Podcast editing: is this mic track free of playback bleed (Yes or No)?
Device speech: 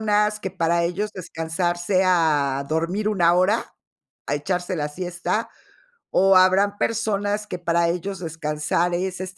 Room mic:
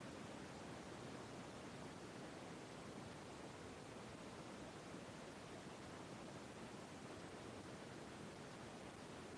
Yes